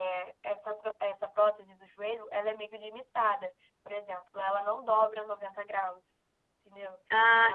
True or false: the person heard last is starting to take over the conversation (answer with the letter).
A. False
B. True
A